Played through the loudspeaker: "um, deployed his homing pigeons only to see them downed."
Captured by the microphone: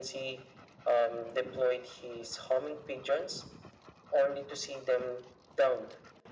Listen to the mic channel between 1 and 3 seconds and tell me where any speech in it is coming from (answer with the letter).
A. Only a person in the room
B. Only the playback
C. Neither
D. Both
B